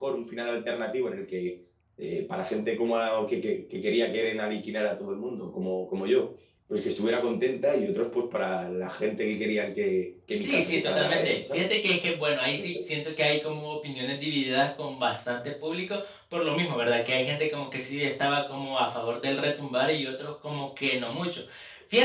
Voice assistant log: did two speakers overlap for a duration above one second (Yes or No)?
Yes